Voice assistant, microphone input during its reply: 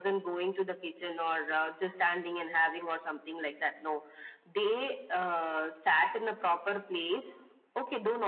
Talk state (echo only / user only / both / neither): echo only